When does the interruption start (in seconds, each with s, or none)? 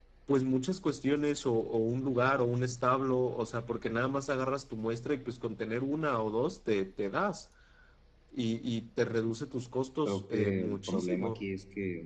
10.0 s